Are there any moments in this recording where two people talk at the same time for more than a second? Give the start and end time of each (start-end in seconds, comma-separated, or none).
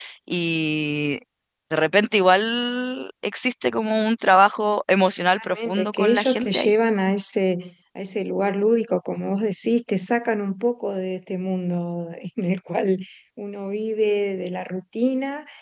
5.4-6.7